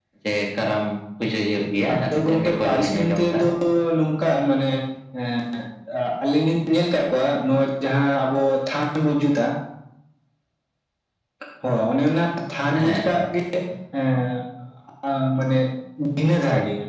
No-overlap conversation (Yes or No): No